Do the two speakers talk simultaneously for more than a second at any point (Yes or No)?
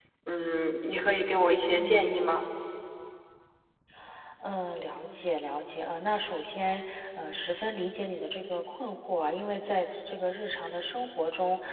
No